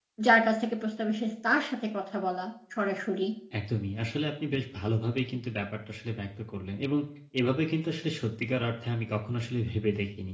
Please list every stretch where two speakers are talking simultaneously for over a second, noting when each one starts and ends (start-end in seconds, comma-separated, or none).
none